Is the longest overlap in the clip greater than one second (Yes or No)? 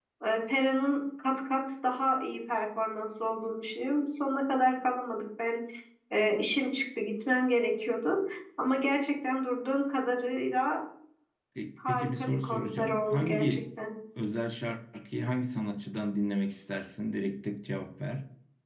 Yes